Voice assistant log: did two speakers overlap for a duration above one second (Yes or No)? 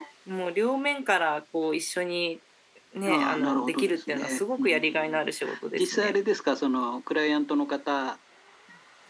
Yes